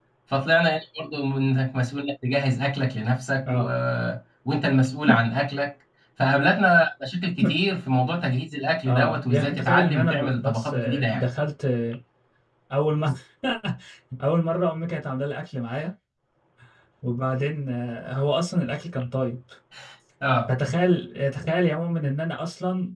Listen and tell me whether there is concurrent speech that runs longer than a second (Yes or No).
Yes